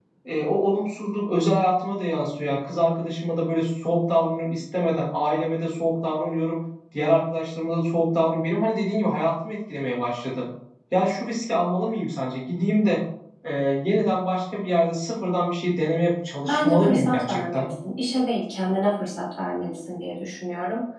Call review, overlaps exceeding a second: present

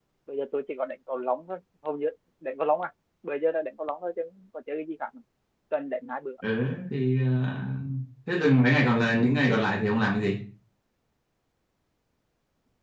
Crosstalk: none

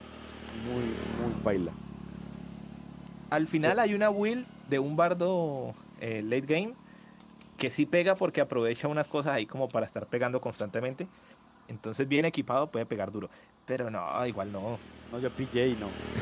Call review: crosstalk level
none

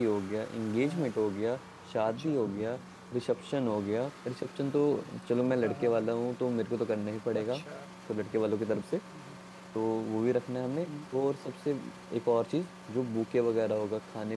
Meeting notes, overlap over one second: none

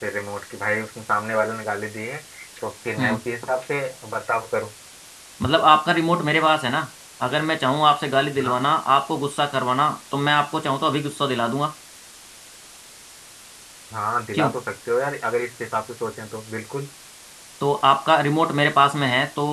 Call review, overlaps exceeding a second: none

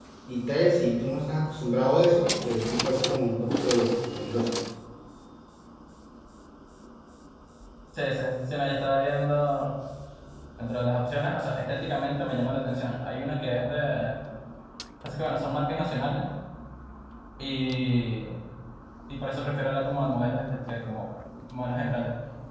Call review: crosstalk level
none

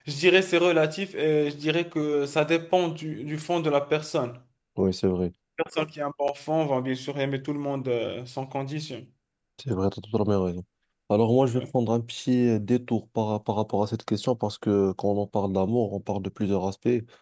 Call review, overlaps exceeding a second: none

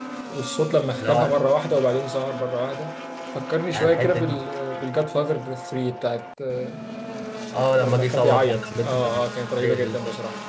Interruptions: present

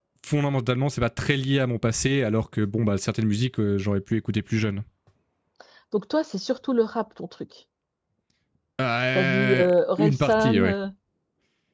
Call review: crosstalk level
present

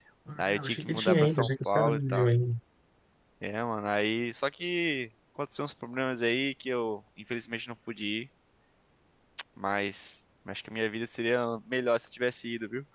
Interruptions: present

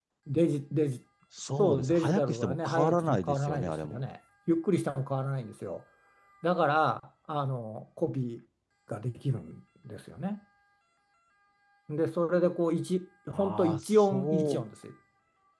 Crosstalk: present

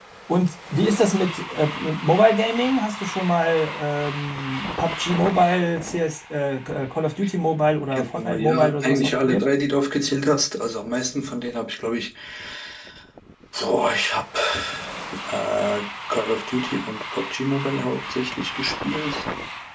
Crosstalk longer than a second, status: present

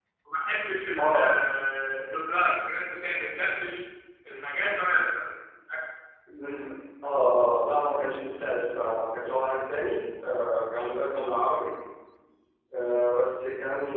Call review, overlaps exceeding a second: none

